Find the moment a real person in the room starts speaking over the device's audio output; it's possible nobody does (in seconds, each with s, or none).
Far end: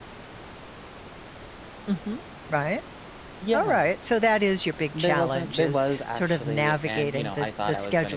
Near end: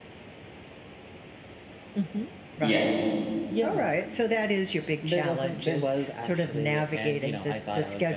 2.6 s